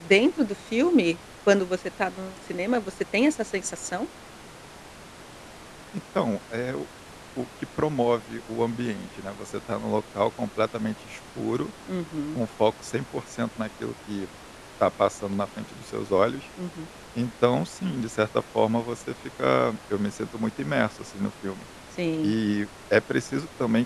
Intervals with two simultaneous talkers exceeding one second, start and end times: none

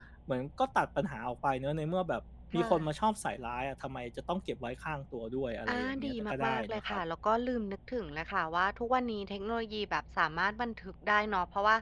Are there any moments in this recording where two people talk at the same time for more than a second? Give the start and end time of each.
5.7-7.0

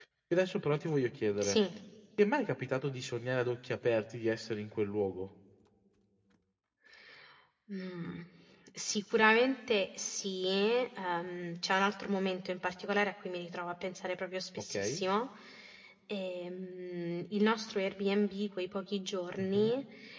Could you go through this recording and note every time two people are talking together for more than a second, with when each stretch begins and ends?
none

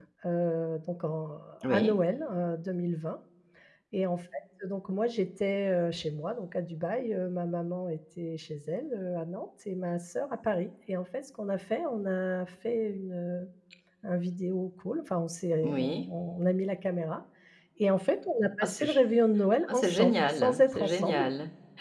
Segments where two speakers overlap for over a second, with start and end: 19.7-21.2

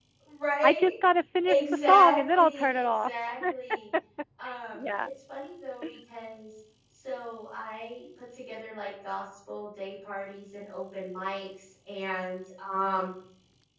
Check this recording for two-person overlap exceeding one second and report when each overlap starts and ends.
1.4-3.1

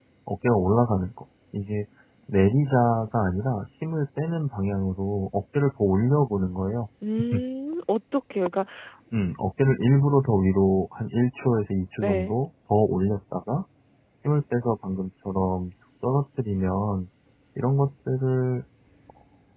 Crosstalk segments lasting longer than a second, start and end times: none

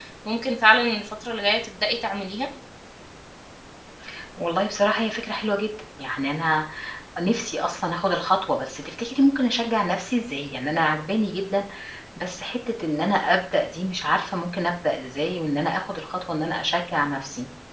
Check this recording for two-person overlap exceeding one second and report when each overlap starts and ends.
none

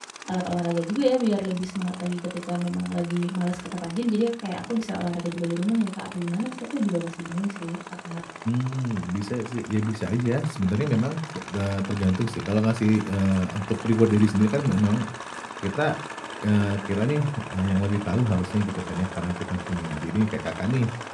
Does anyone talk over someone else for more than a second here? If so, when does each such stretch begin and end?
none

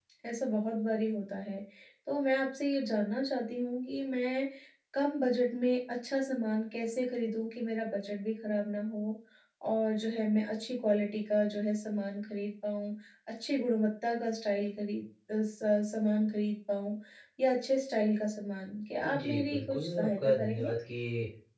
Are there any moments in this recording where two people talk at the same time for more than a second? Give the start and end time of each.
19.0-20.7

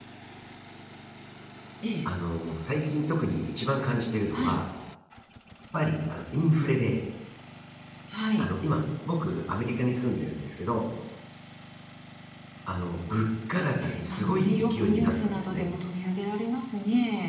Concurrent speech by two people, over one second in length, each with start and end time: 13.6-15.7

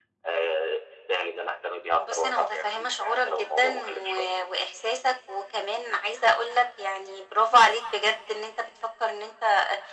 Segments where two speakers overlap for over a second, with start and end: 2.0-4.1

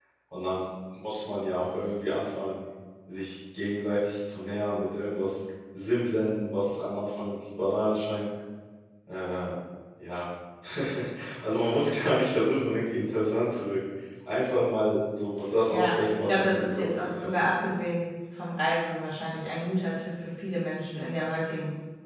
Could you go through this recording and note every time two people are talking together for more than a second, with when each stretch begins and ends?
15.7-17.5

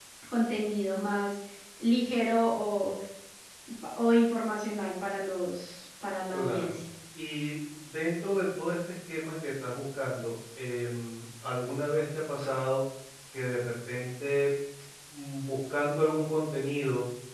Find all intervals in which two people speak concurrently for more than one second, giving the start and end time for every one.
none

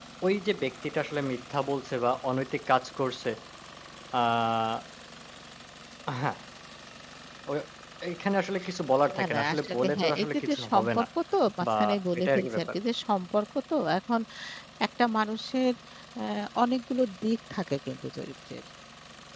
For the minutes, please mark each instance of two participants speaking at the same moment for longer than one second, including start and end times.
9.1-11.0

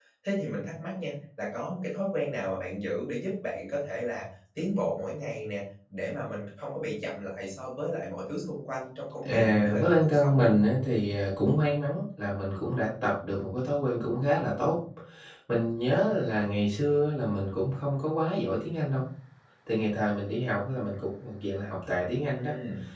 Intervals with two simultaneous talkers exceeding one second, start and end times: 9.2-10.5

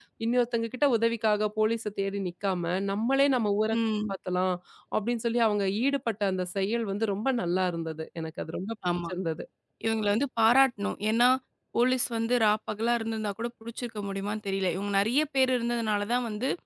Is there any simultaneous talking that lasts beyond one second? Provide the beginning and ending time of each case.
none

